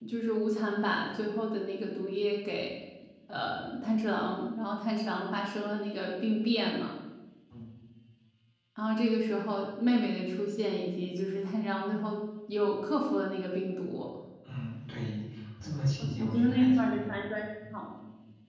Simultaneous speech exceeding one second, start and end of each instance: 16.0-17.2

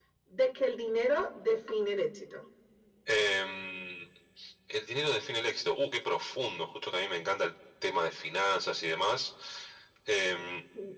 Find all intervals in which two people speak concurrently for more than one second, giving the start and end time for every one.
none

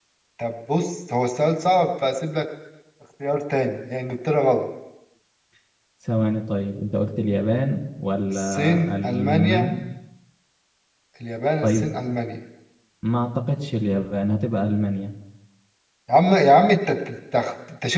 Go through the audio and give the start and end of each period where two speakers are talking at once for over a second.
8.3-9.7

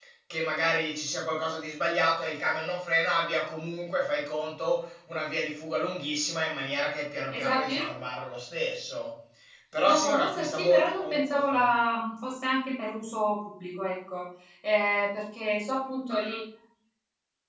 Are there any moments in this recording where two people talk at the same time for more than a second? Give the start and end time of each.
9.9-11.7

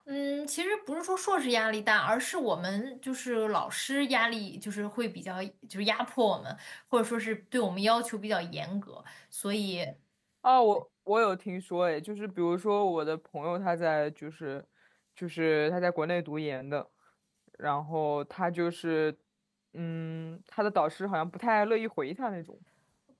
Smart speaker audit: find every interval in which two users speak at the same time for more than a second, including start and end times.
none

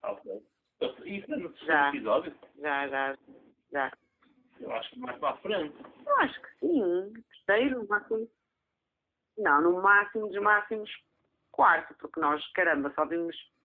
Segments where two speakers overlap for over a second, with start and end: none

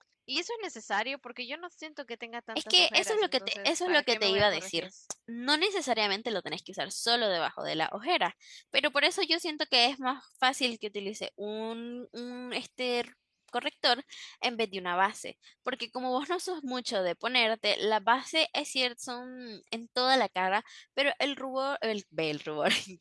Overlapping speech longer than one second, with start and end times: 2.6-4.9

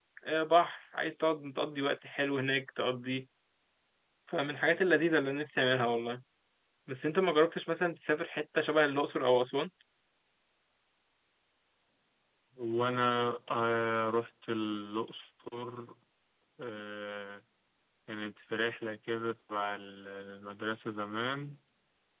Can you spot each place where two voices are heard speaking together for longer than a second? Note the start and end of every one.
none

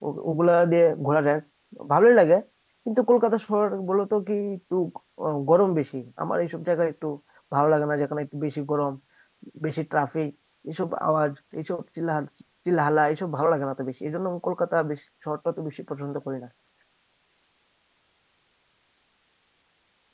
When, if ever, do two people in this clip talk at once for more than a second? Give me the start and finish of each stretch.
none

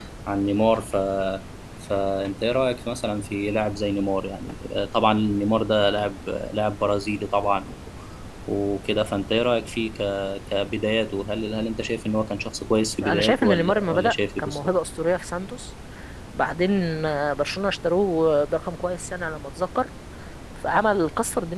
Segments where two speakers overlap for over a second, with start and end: 13.0-14.7

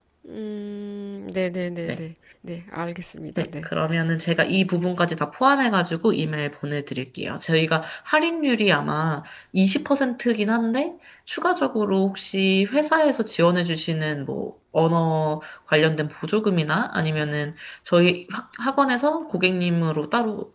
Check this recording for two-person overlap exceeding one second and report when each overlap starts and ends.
none

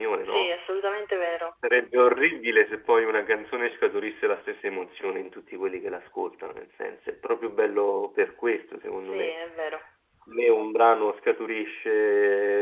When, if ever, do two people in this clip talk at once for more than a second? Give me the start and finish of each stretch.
none

